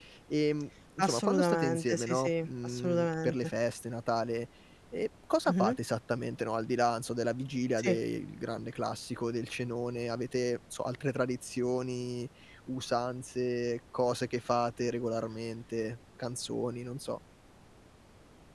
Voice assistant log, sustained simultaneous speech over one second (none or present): present